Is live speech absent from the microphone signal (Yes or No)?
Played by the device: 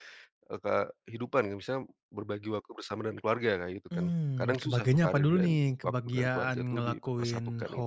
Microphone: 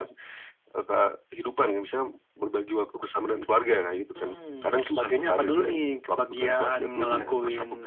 No